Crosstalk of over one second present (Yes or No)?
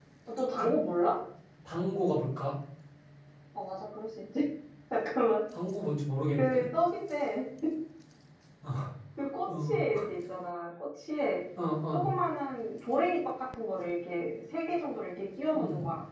No